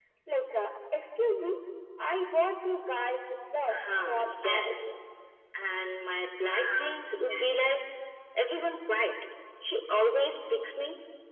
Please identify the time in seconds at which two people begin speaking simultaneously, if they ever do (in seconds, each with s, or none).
3.7 s